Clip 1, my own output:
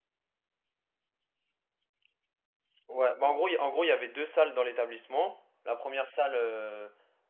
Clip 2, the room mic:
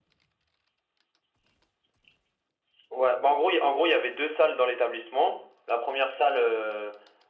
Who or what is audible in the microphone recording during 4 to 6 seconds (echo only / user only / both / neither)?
echo only